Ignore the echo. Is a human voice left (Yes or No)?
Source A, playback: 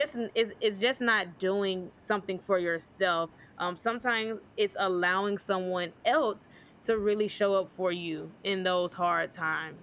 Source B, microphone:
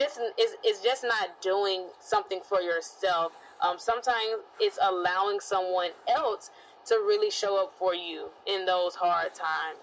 No